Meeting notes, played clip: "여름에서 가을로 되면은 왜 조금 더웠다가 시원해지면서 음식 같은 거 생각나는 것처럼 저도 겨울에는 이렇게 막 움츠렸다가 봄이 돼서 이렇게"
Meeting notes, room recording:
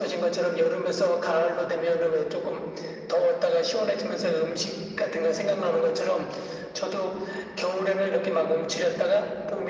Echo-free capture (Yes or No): No